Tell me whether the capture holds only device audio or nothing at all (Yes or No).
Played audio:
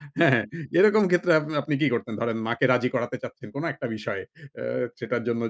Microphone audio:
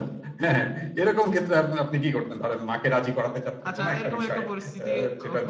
No